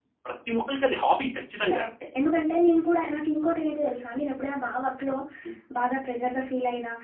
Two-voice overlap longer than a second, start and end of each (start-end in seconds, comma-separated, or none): none